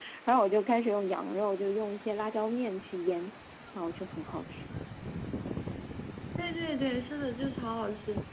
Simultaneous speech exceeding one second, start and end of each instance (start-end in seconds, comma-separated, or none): none